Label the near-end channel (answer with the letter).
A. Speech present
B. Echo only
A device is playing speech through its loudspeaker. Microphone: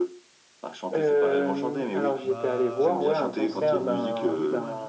A